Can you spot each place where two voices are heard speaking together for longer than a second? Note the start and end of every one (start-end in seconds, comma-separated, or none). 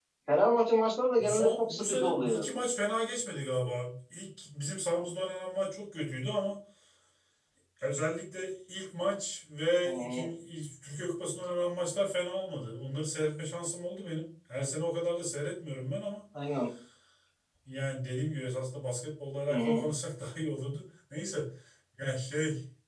1.2-2.4